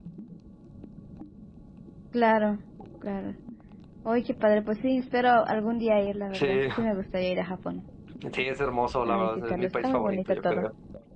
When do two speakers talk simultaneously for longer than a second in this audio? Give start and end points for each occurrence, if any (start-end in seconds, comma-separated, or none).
9.1-10.7